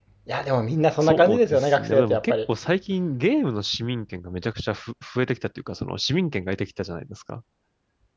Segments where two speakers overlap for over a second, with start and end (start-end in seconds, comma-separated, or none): 1.0-2.3